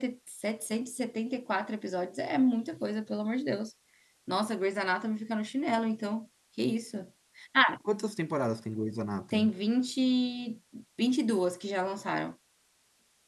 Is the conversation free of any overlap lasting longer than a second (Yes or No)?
Yes